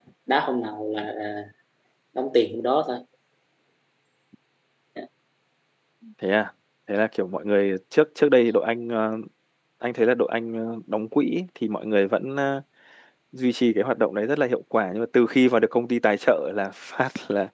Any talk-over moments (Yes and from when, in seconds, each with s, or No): No